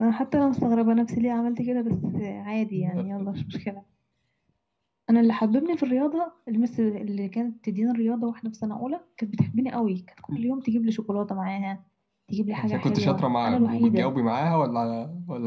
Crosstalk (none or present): present